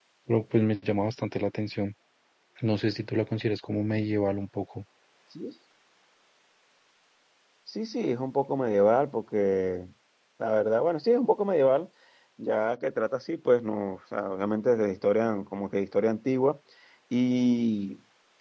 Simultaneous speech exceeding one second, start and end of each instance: none

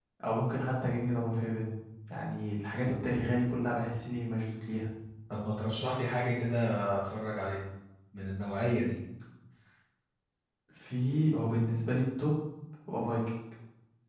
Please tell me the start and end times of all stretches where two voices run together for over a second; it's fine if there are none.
none

